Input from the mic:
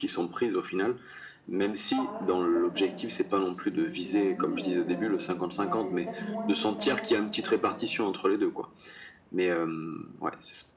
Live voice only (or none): Par là, je veux dire que, hem, tu tu, heu, tu m'as dit, heu, que, hem, elle avait peut-être moins d'expérience en fait, heu